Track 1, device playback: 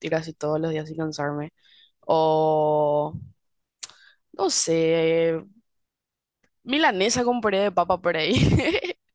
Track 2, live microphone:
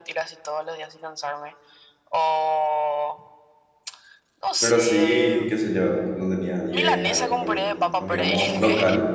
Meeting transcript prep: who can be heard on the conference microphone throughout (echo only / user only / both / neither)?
both